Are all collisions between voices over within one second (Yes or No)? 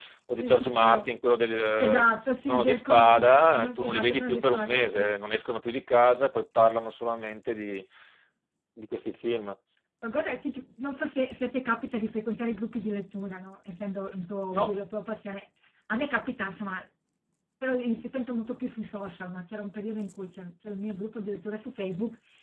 No